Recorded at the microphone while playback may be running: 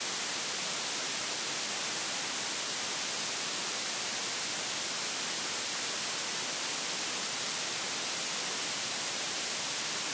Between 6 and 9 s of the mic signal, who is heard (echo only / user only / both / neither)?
neither